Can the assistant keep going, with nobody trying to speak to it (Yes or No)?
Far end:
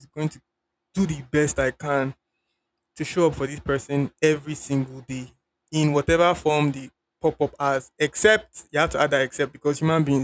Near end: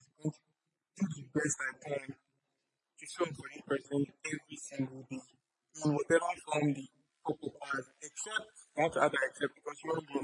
Yes